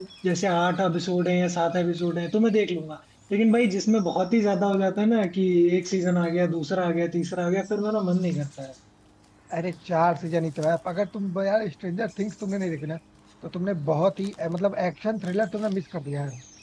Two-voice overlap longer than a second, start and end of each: none

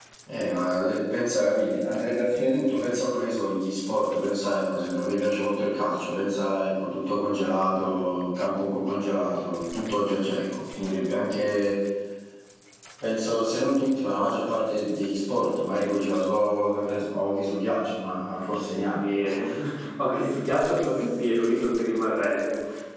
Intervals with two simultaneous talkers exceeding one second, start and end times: none

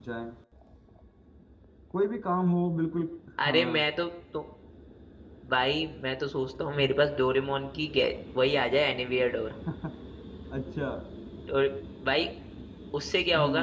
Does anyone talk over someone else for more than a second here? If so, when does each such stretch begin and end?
none

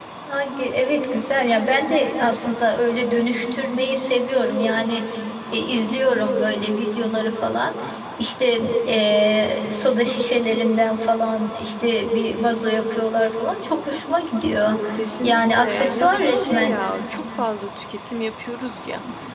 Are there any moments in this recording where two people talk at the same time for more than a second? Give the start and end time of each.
15.2-16.7

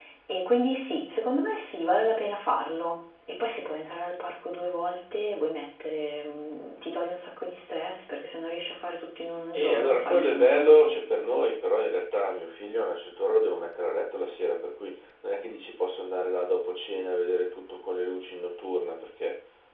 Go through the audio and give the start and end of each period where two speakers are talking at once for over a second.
9.5-11.0

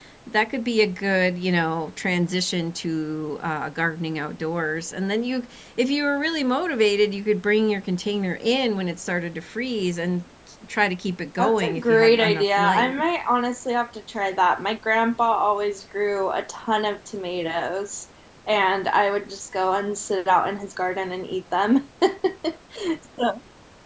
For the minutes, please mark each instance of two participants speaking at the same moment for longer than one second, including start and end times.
11.4-13.0

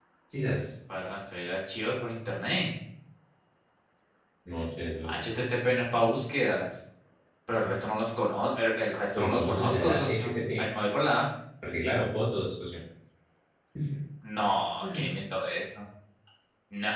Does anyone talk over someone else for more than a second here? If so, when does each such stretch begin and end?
9.1-10.6

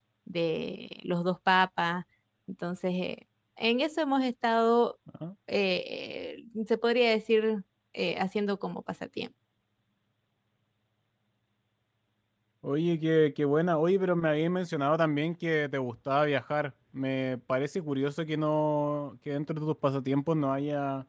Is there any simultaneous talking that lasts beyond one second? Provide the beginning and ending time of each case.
none

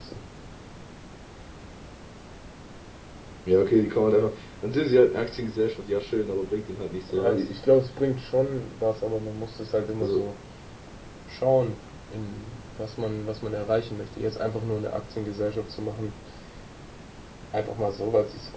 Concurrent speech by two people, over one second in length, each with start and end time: none

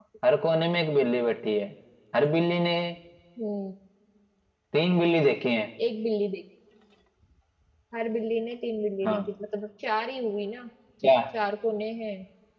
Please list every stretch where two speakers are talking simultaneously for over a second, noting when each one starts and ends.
none

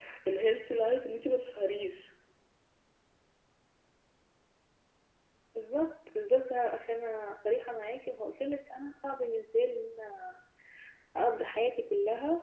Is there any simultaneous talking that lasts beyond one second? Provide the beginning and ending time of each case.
none

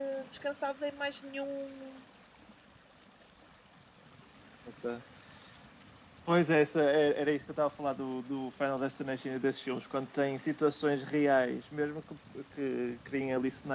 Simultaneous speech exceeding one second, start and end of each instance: none

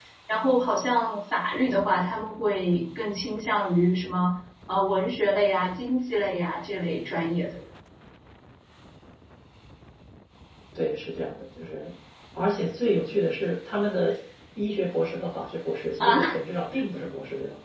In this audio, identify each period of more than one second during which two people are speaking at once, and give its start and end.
none

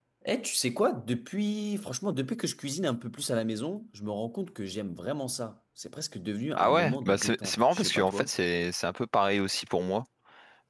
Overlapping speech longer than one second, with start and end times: 6.6-8.3

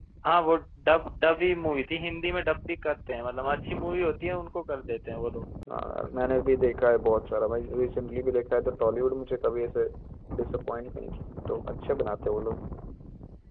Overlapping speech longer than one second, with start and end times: none

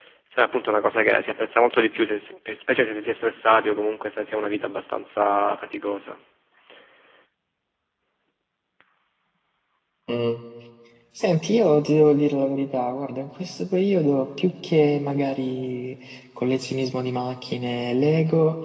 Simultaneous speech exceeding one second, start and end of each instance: none

